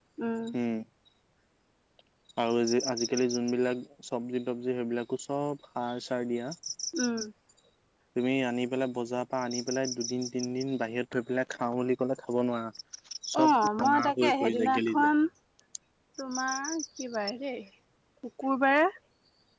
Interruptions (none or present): present